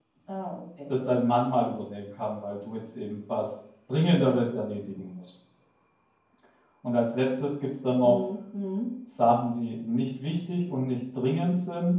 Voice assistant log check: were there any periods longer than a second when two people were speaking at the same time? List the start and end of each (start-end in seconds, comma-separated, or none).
none